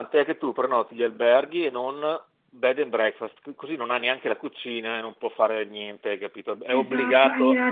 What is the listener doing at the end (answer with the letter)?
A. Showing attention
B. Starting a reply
B